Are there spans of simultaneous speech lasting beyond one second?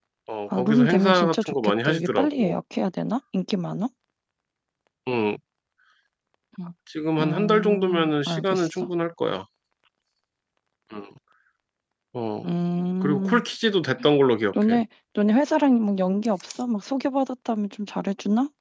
Yes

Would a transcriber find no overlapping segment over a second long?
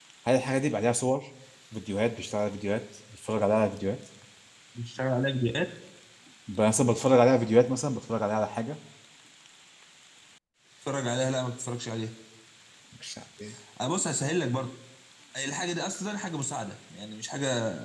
Yes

